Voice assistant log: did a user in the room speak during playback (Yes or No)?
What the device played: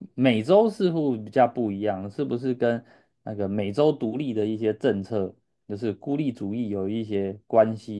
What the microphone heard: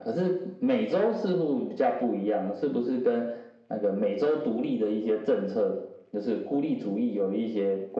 No